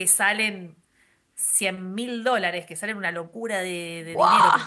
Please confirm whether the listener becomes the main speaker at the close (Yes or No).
No